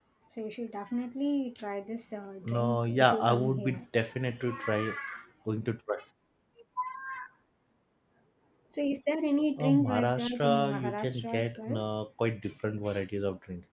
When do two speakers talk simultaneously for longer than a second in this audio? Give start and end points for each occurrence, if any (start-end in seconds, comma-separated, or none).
2.4-3.8, 9.6-11.8